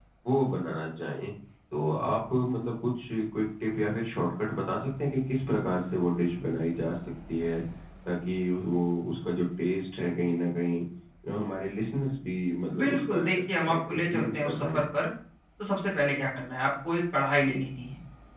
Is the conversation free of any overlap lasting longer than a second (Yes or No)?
No